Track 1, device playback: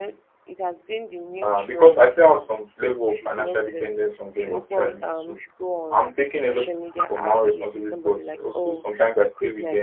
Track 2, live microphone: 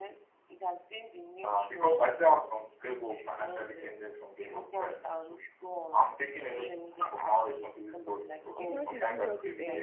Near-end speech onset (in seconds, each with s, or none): 8.5 s